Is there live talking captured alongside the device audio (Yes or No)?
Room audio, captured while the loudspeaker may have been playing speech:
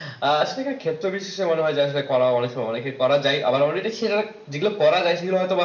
No